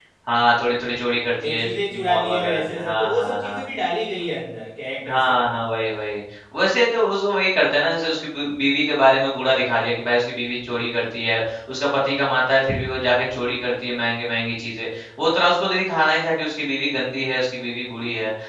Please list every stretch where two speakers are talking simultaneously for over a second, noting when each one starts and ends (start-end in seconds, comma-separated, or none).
2.0-3.6